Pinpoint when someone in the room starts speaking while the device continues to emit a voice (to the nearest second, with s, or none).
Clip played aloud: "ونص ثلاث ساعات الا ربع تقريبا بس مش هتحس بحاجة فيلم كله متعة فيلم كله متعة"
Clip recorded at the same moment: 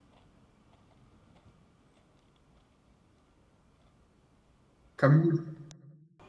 5 s